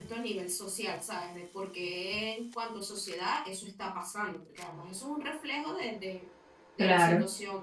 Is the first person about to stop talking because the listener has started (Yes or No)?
No